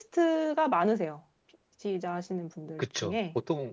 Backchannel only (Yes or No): No